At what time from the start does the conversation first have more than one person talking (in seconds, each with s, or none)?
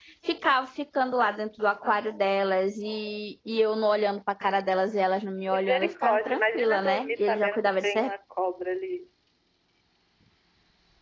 5.5 s